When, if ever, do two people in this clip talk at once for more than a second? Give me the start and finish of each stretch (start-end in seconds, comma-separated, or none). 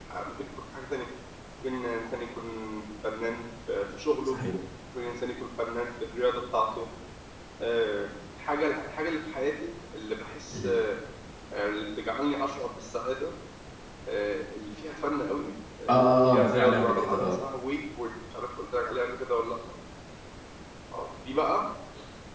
15.9-17.4